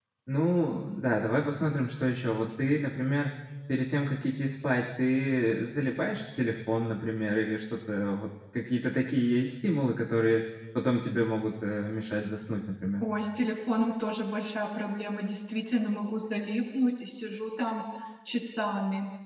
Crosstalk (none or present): none